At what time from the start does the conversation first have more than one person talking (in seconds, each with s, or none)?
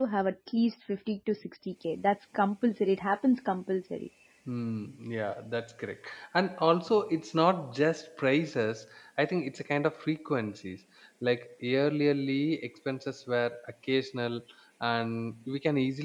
none